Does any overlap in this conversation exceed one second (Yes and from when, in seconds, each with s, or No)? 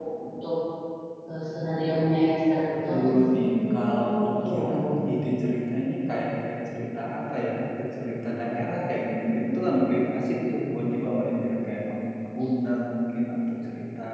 Yes, from 2.9 s